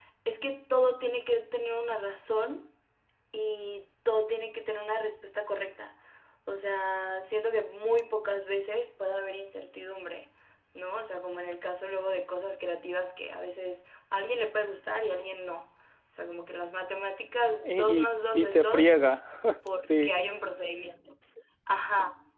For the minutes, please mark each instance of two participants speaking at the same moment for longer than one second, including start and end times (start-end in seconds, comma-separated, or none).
17.6-18.9